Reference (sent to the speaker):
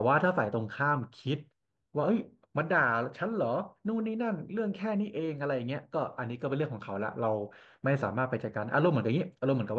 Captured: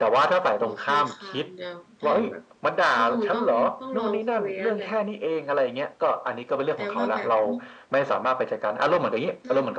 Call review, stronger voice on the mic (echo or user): echo